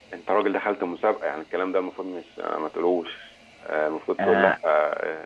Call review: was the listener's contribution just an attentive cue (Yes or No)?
Yes